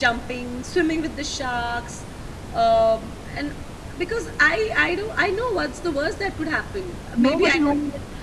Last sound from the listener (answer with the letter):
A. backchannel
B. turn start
B